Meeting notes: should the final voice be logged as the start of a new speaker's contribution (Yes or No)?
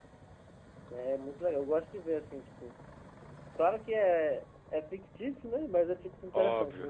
No